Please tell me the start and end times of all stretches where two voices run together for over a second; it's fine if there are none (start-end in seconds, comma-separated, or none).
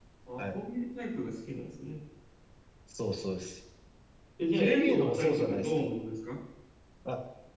4.5-5.8